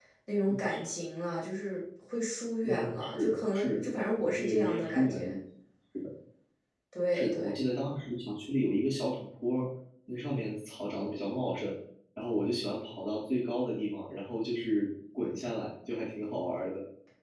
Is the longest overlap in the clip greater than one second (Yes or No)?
Yes